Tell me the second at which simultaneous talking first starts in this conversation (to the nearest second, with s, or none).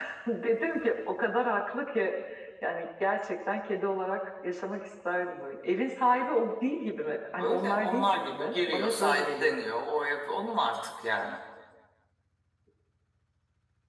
7 s